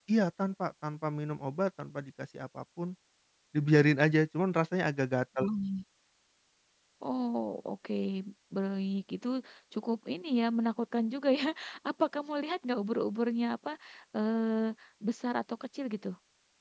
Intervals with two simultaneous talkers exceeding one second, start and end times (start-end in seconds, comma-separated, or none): none